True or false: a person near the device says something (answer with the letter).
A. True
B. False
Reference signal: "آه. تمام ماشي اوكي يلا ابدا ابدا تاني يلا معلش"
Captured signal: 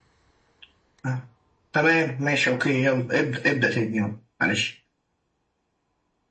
B